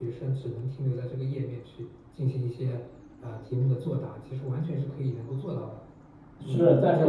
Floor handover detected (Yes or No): Yes